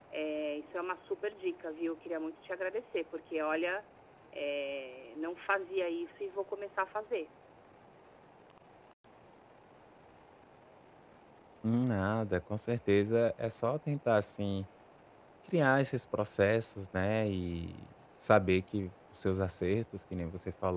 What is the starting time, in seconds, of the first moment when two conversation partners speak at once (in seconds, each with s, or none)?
none